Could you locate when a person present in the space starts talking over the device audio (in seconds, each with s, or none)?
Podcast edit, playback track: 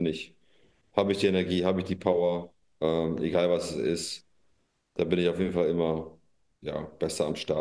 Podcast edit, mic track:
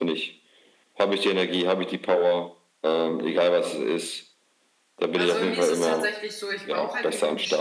5.2 s